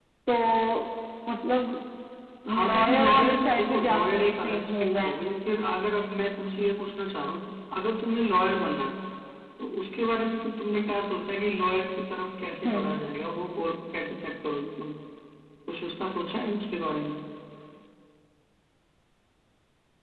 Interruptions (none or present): present